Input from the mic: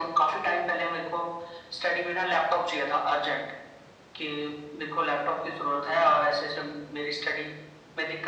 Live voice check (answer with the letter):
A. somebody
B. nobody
B